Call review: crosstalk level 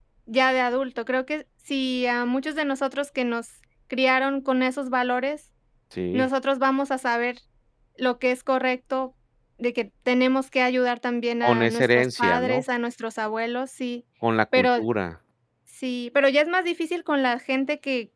present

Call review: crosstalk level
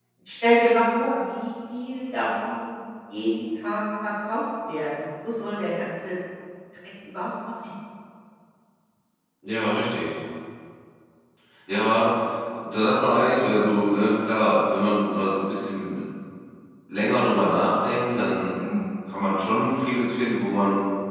none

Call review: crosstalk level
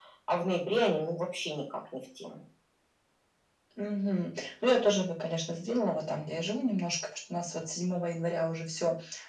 none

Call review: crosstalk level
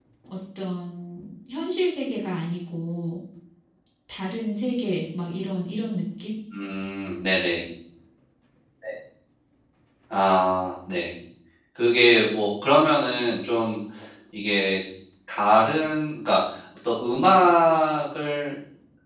none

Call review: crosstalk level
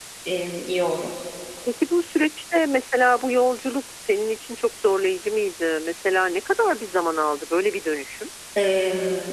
none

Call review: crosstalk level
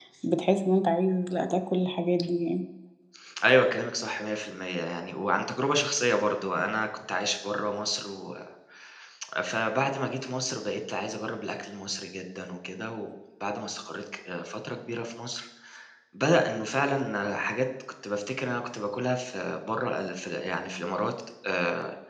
none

